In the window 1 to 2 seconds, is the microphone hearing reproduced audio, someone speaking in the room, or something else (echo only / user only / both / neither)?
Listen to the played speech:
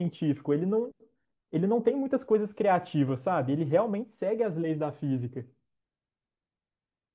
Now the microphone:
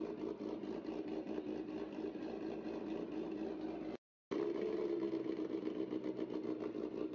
neither